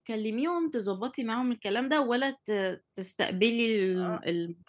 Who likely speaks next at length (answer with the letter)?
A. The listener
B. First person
A